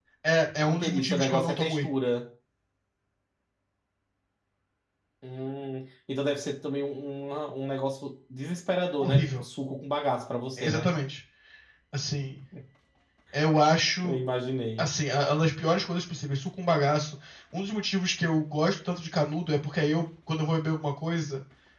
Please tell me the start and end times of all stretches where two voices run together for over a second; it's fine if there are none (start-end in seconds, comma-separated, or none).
0.7-1.9